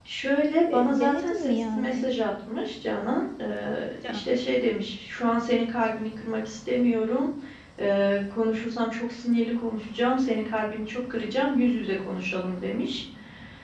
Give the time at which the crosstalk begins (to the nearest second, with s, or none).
1 s